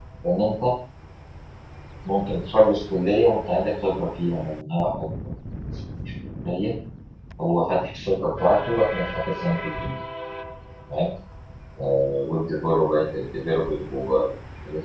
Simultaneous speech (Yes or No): No